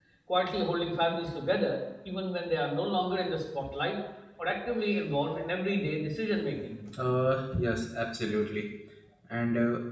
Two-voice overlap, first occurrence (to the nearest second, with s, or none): none